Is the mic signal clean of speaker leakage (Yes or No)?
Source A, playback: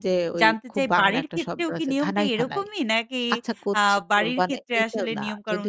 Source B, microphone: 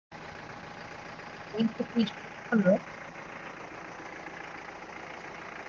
Yes